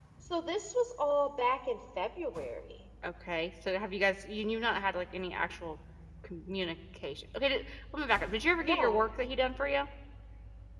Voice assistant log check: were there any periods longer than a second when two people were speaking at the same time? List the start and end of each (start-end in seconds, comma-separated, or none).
none